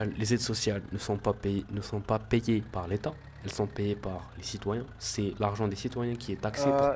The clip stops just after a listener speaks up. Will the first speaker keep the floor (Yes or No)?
No